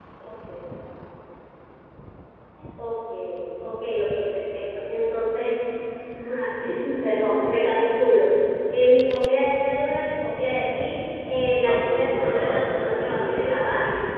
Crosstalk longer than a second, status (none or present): present